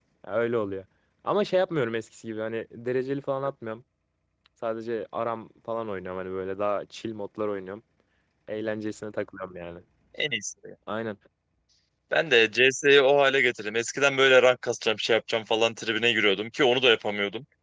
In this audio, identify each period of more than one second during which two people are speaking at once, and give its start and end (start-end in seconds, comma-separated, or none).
none